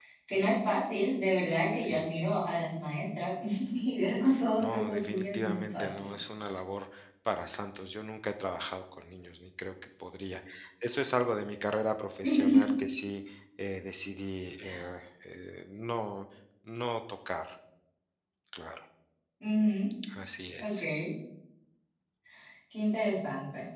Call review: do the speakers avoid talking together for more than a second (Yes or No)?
No